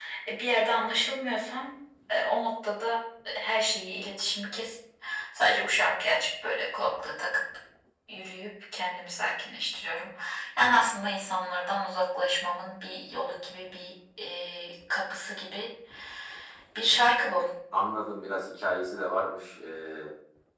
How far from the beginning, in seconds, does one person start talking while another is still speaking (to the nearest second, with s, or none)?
none